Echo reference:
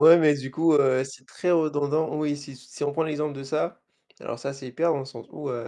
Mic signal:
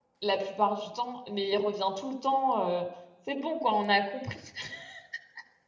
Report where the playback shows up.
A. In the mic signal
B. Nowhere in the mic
B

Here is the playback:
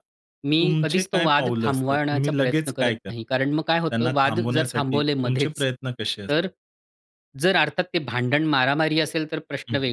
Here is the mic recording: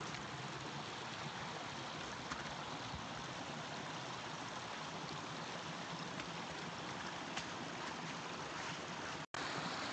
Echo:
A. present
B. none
B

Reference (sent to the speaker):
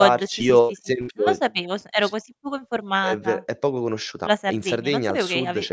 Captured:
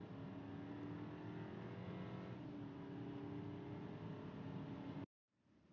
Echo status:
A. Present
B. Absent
B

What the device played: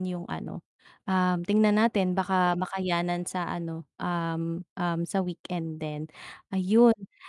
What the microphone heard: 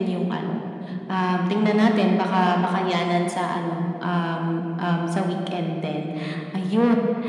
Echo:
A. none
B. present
B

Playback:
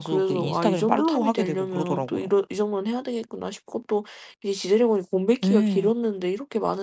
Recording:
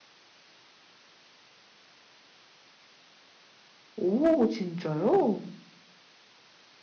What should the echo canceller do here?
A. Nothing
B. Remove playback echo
A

